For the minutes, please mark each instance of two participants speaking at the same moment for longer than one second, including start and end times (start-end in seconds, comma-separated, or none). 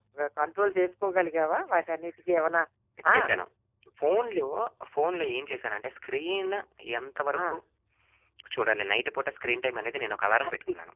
none